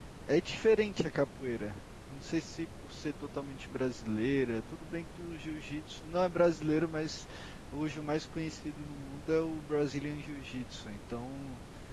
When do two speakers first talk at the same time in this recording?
none

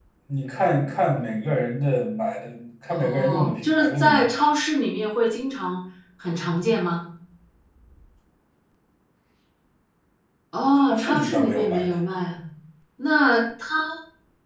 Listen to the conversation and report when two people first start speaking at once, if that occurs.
2.9 s

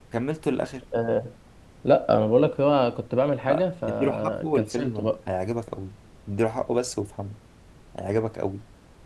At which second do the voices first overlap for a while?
3.9 s

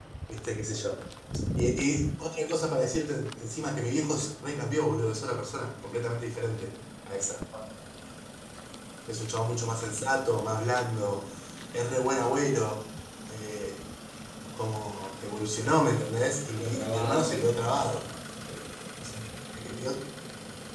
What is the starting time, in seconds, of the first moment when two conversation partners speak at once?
16.5 s

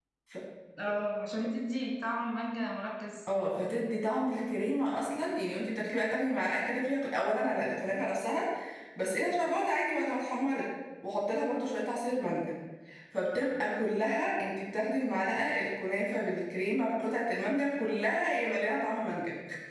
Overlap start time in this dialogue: none

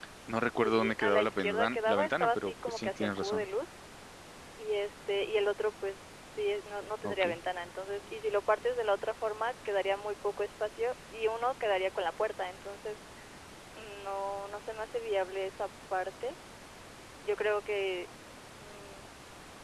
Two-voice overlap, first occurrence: 0.6 s

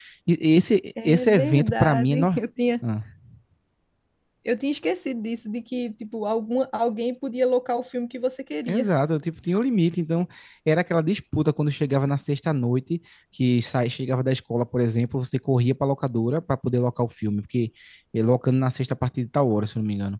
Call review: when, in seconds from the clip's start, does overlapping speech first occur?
1.0 s

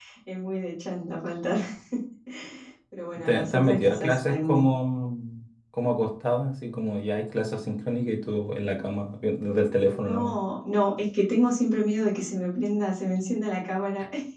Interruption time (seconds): 3.2 s

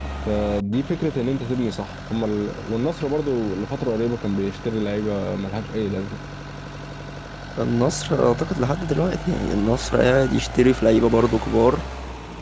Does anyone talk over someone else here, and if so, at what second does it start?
none

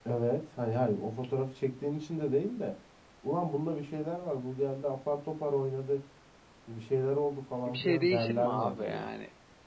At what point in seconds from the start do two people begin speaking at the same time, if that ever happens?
7.7 s

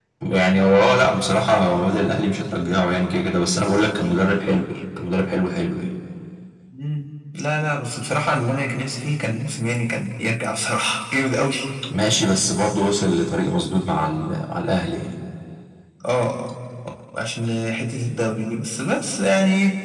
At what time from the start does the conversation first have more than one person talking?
none

